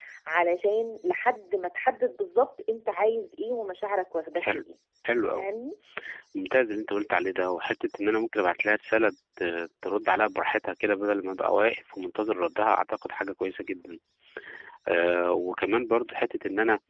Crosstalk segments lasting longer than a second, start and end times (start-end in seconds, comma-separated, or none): none